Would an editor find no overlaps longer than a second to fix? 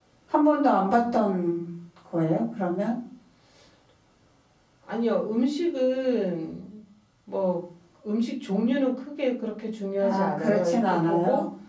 No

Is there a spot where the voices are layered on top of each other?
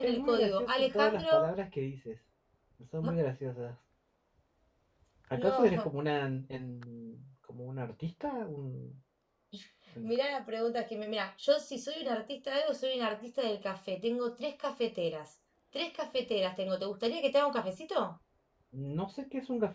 Yes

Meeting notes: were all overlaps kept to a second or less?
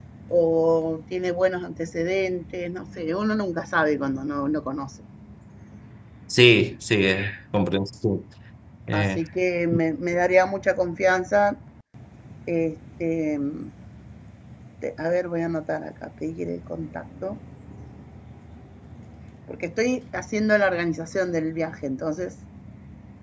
Yes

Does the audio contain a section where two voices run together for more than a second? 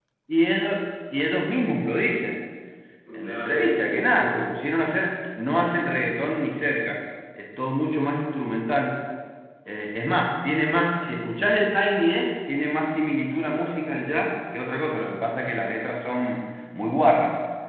Yes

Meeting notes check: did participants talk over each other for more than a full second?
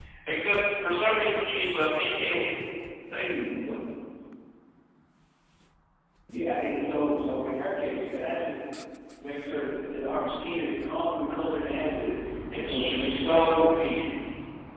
Yes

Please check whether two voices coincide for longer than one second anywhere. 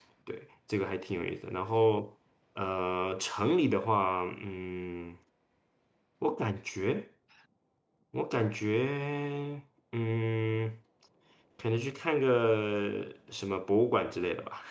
No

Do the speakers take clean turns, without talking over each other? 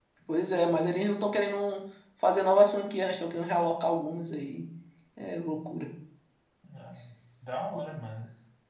Yes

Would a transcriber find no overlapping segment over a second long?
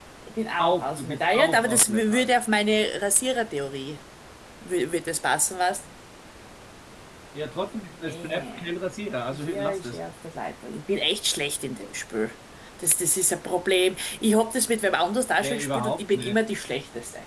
No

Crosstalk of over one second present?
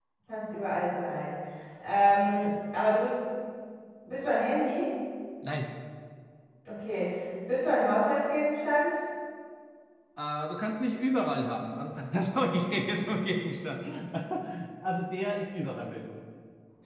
No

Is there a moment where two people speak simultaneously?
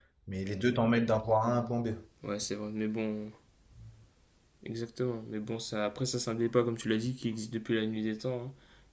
No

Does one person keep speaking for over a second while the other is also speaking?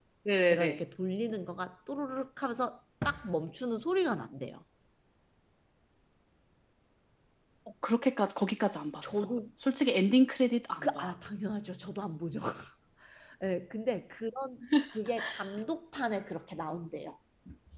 No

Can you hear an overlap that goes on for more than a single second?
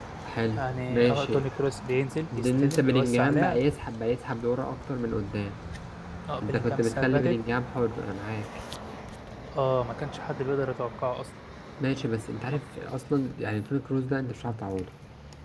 Yes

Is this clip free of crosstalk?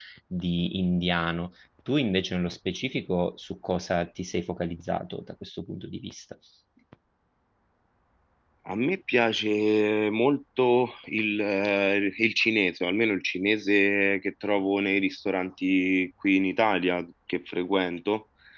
Yes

